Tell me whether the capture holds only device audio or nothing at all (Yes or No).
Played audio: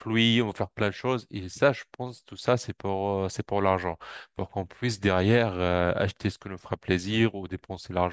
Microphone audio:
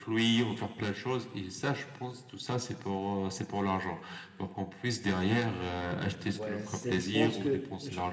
No